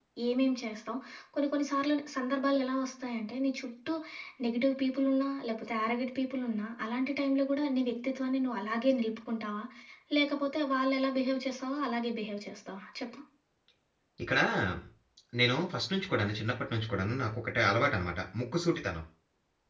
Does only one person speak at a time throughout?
Yes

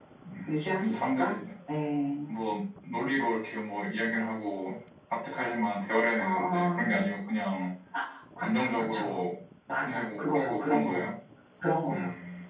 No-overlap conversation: No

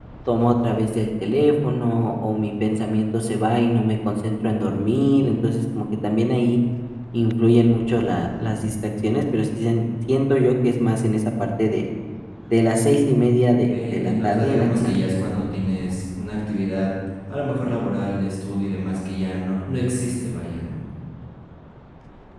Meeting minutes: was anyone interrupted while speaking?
Yes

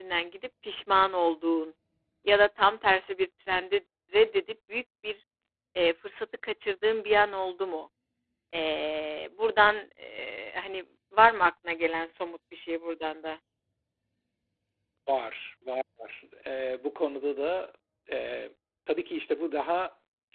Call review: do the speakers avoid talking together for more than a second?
Yes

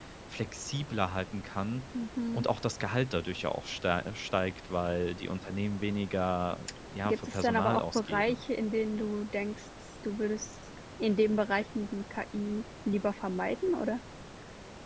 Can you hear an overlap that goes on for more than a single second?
Yes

